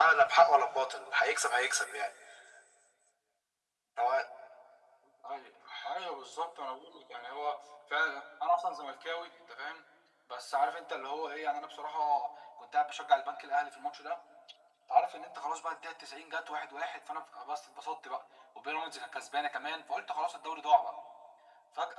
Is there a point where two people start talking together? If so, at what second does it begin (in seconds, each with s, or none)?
none